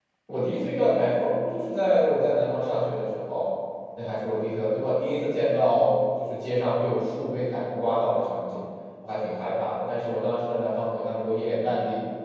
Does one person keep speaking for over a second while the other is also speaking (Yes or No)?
No